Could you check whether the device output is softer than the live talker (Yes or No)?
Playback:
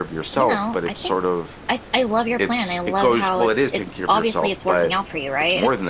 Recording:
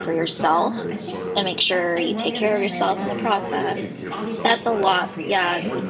Yes